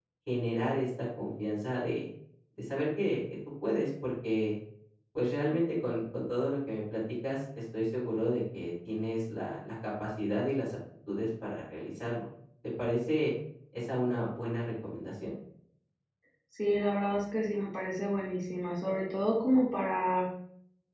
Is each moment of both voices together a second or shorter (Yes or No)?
Yes